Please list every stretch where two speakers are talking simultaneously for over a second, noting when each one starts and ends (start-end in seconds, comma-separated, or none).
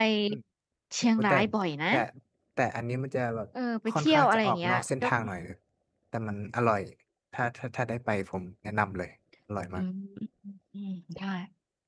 3.9-5.1